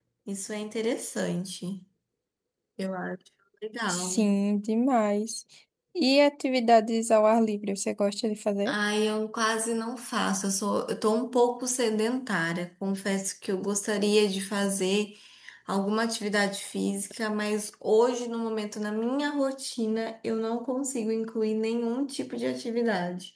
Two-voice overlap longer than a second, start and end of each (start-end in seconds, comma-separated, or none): none